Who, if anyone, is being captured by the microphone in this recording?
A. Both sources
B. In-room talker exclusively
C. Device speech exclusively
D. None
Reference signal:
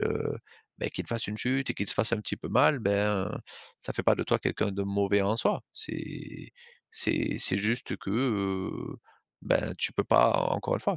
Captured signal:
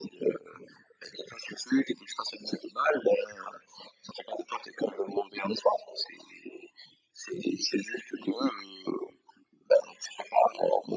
C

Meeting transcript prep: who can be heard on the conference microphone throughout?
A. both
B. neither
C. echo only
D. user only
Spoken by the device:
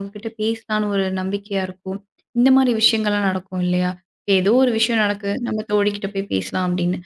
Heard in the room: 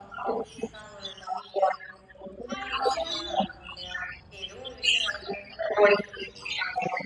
A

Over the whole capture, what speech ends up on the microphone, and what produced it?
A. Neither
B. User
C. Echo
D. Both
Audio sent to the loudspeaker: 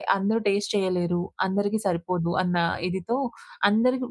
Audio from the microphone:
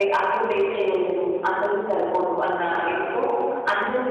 C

